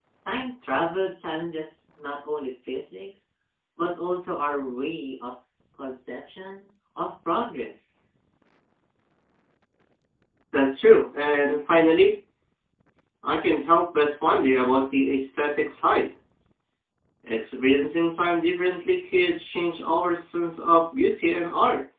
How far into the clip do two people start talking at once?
none

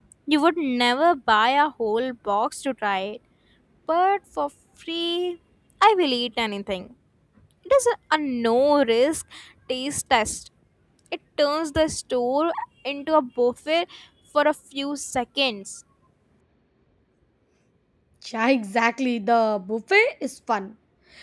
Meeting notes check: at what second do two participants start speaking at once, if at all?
none

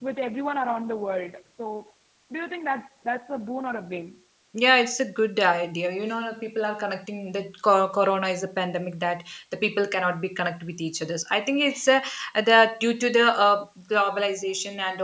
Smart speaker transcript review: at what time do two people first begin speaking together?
none

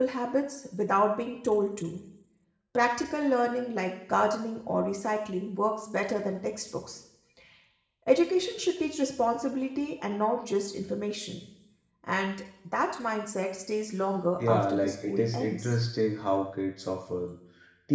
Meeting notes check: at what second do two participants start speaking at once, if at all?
14.4 s

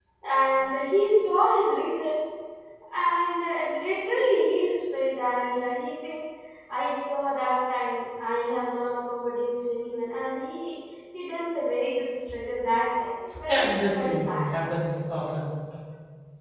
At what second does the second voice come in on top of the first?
13.3 s

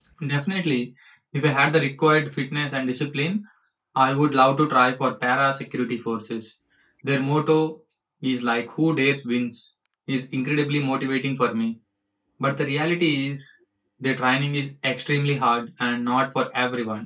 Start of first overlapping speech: none

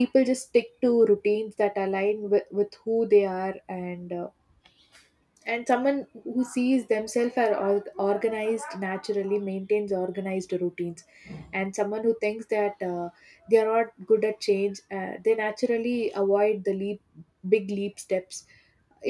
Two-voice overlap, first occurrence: none

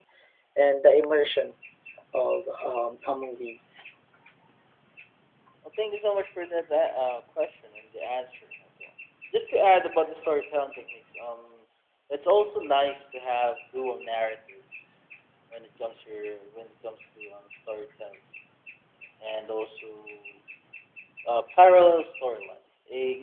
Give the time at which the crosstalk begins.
none

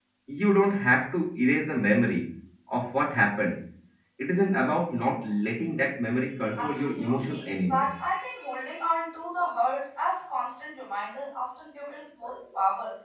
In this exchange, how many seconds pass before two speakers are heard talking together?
6.6 s

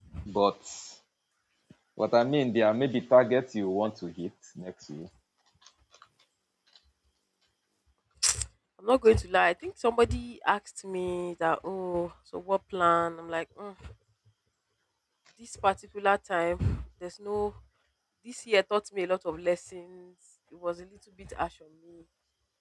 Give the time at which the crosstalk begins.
none

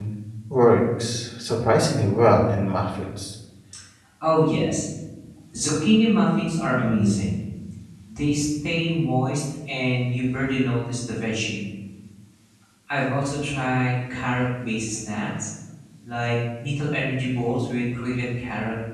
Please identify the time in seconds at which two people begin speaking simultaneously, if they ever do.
none

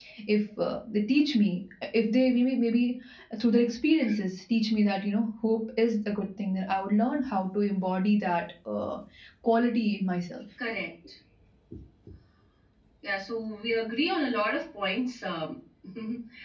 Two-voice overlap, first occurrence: none

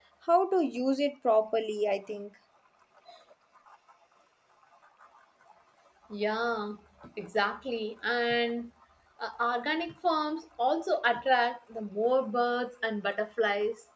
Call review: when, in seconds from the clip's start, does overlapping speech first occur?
none

